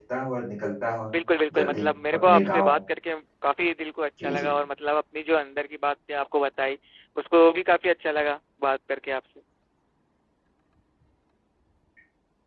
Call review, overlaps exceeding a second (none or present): present